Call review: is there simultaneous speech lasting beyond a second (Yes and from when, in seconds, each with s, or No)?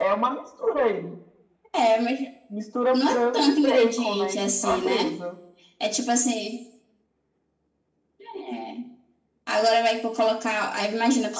Yes, from 2.9 s